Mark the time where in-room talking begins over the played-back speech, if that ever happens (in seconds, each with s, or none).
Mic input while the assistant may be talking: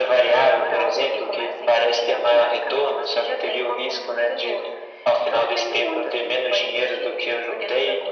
none